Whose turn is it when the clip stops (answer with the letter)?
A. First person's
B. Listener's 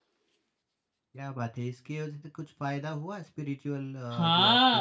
B